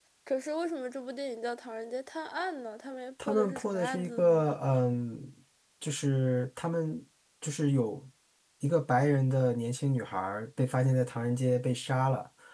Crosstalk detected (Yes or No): Yes